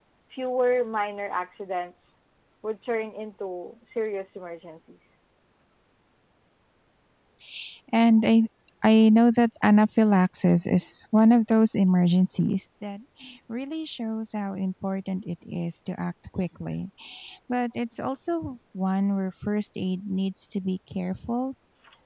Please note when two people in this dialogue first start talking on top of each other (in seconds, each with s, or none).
none